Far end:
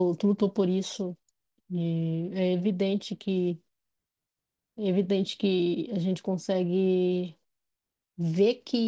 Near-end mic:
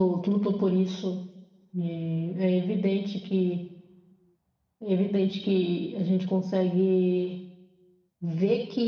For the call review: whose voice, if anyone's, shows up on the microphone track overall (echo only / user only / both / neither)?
echo only